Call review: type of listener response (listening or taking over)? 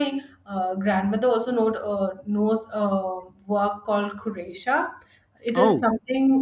listening